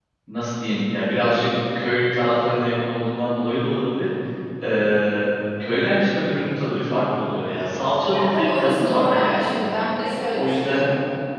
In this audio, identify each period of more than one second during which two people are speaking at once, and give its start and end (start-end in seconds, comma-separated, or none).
8.1-9.5